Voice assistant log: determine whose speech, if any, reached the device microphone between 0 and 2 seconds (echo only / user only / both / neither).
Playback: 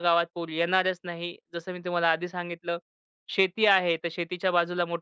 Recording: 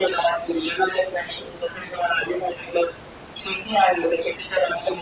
echo only